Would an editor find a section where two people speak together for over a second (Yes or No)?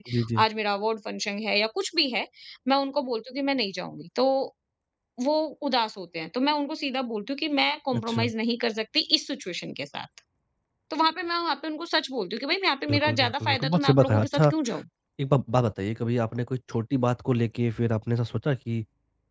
Yes